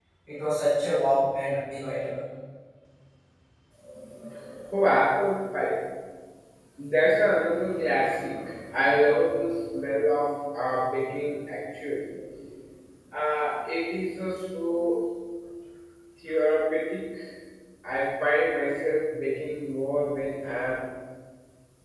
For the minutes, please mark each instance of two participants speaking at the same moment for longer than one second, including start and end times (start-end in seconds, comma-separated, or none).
none